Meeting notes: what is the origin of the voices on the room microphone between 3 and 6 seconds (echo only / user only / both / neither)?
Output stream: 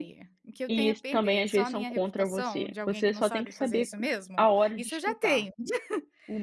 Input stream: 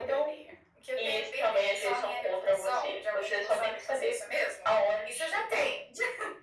echo only